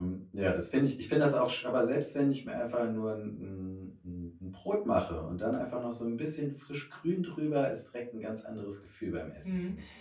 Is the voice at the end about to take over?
Yes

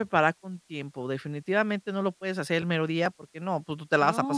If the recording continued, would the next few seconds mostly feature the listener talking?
Yes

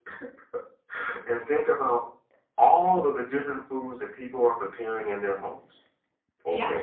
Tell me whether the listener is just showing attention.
Yes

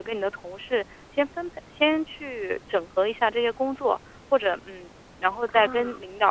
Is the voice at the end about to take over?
No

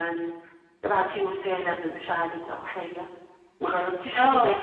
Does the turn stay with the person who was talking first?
No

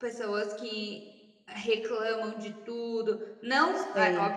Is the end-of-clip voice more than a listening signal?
No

